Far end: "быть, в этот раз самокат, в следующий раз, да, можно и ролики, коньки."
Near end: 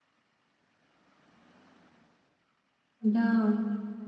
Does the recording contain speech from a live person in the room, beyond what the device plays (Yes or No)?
Yes